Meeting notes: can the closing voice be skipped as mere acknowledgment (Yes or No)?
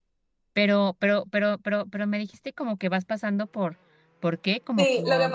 No